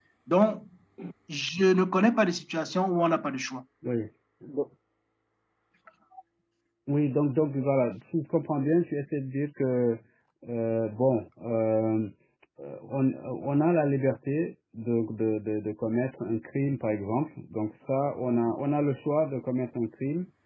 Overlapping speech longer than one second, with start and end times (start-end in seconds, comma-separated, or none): none